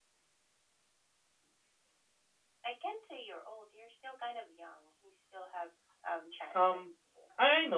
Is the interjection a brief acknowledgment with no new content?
No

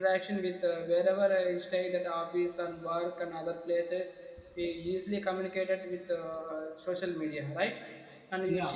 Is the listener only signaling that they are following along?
Yes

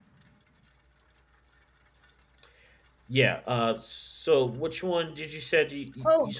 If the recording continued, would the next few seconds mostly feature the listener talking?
Yes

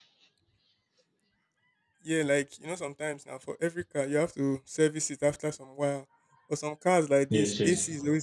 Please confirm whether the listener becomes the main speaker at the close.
No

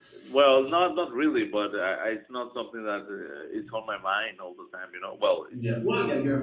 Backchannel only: No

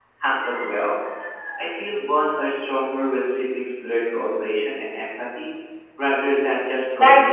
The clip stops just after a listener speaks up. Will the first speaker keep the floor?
No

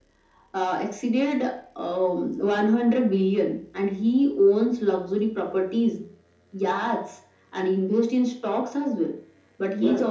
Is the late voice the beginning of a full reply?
No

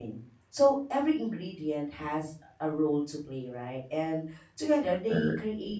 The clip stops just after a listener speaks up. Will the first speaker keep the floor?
Yes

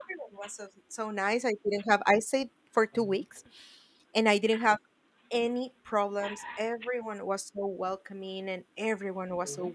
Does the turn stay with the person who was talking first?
Yes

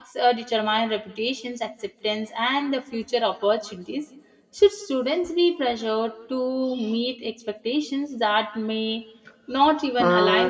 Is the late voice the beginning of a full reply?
Yes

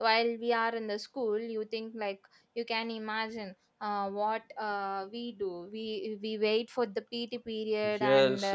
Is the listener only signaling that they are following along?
No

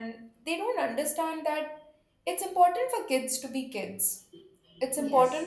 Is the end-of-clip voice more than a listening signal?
No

